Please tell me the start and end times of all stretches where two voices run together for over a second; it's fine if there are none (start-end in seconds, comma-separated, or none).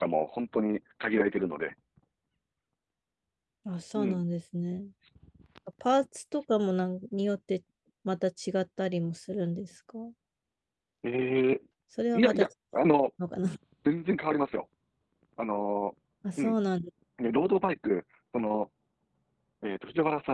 none